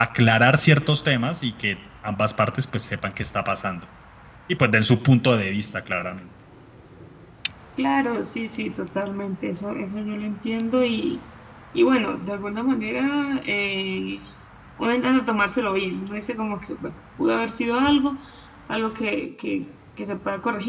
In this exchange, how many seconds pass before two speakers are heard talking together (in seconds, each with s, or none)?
none